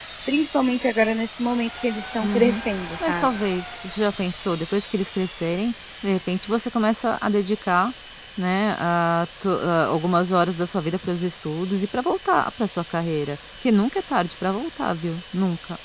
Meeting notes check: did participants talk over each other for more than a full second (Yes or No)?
No